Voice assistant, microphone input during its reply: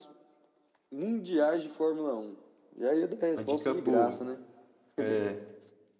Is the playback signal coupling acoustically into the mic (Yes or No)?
Yes